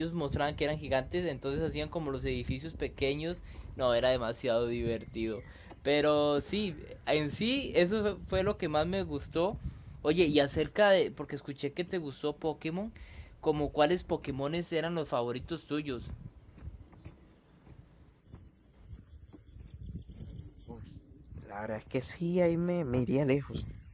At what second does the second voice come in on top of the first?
none

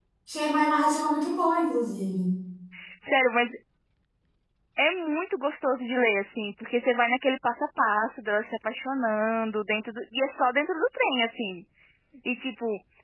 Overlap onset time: none

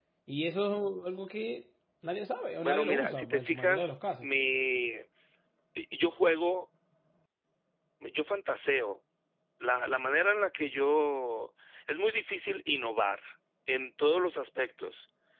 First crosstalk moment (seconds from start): 2.6 s

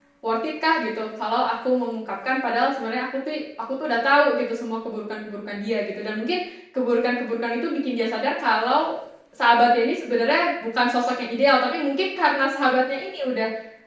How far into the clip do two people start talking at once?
none

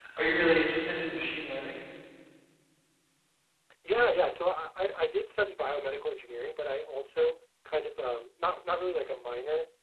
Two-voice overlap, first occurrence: none

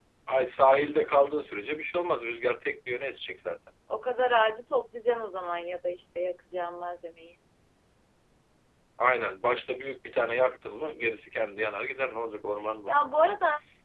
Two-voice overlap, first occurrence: none

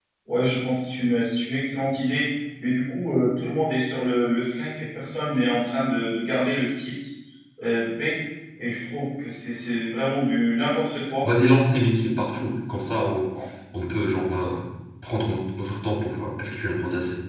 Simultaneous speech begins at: none

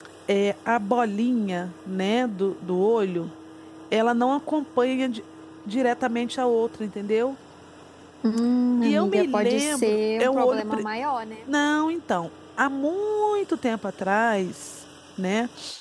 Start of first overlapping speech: 8.8 s

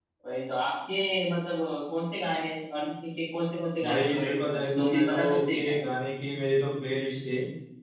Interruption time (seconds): 3.8 s

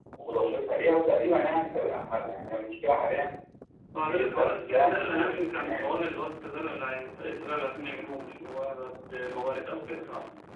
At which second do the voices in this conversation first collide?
4.0 s

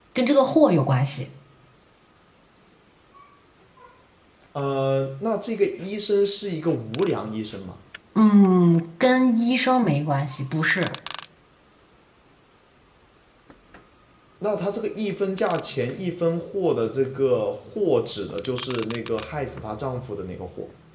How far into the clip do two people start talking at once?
none

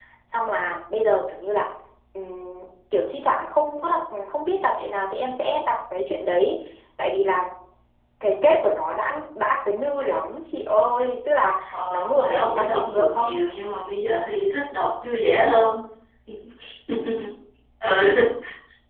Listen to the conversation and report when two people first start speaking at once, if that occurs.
11.7 s

